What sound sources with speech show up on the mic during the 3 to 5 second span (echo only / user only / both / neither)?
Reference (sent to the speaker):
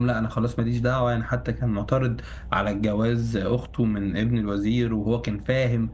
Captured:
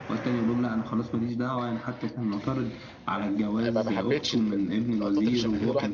both